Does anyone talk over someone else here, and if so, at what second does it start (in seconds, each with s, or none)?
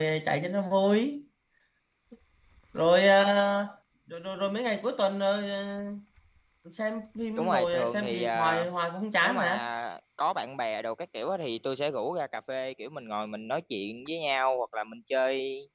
7.4 s